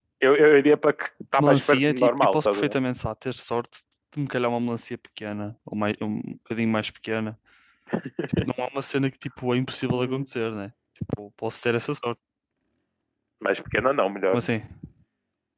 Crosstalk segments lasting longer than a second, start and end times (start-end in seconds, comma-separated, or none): 1.4-2.7